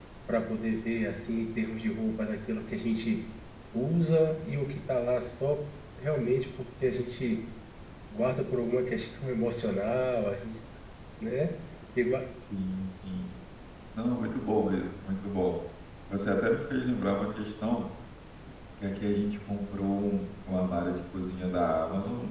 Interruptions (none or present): none